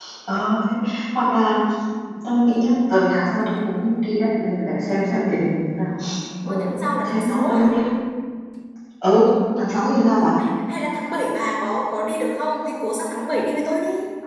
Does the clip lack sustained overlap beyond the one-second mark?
No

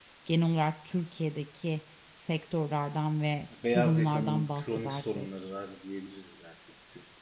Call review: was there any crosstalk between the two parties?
Yes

